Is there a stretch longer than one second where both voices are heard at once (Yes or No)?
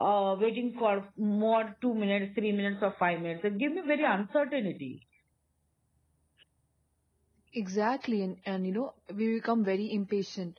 No